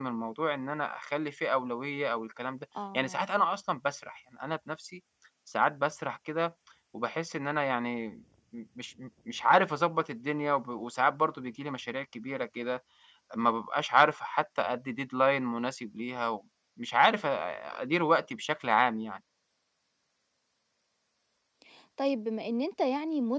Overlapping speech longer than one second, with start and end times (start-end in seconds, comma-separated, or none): none